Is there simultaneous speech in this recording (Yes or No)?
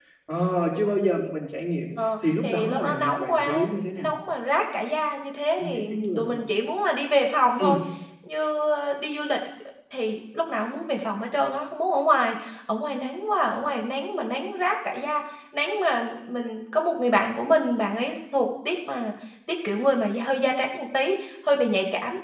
Yes